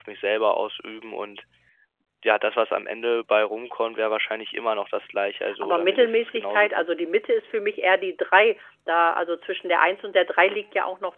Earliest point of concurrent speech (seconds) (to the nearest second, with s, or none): 5 s